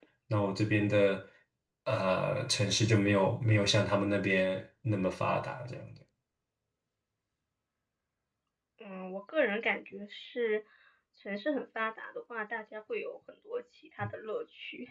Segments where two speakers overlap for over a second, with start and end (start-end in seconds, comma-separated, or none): none